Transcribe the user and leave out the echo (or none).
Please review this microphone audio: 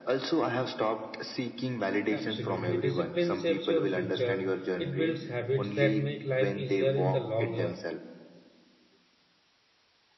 Absolutely. Discipline shapes your future. It builds habits that make life easier in the long run.